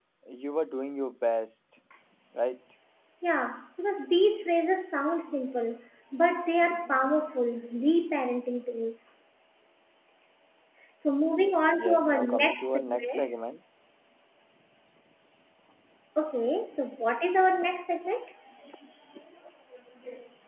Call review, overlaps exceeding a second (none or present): present